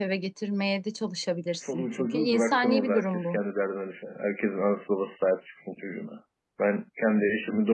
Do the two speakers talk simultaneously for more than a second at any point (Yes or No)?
Yes